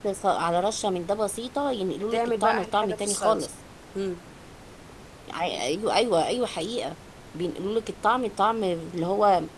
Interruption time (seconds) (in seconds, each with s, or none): 2.1 s